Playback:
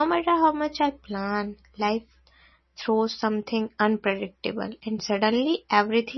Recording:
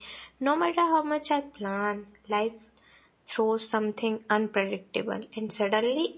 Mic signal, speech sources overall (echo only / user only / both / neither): echo only